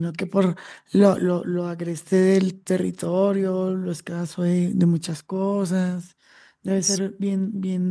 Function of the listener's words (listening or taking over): listening